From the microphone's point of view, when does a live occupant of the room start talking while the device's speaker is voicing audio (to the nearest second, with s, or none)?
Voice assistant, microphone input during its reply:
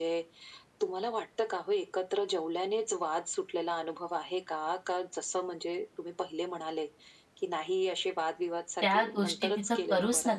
9 s